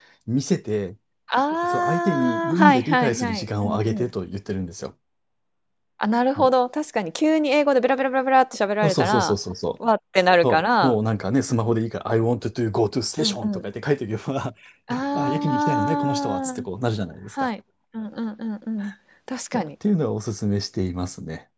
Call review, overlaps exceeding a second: present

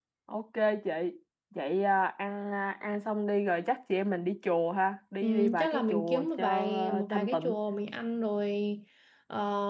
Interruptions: present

